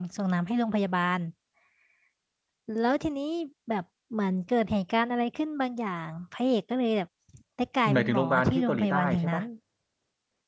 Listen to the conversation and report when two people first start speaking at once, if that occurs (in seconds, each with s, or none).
7.9 s